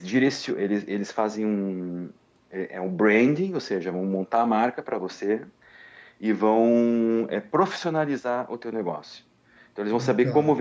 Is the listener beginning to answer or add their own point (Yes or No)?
No